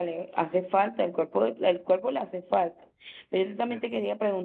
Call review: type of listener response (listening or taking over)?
listening